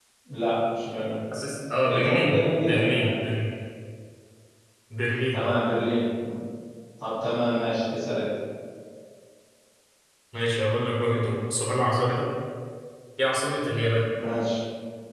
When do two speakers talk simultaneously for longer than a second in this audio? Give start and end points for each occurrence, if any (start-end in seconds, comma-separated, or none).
1.9-3.2